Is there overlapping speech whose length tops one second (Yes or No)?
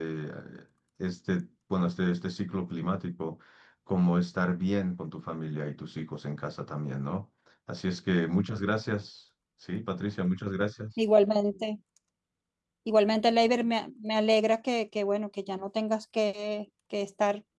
No